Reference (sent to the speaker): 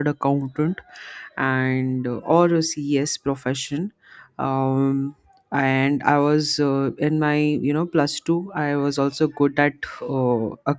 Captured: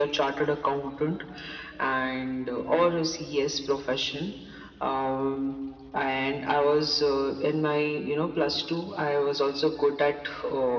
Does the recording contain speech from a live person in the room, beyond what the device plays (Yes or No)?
No